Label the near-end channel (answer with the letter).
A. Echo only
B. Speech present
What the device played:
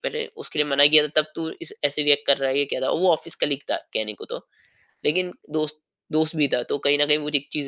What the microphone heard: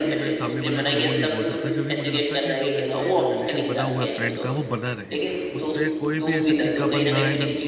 B